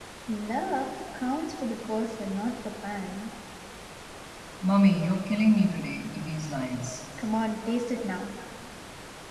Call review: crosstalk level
none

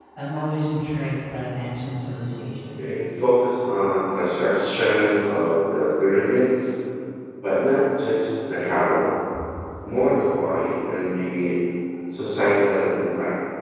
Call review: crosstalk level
none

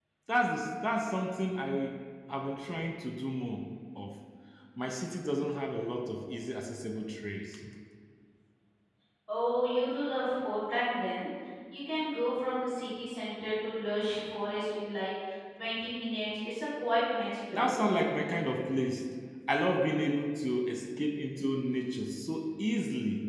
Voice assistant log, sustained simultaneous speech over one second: none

